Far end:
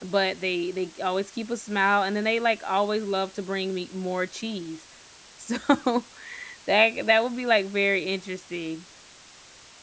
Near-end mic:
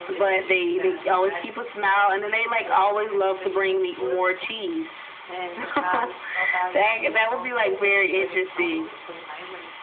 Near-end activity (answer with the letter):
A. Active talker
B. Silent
A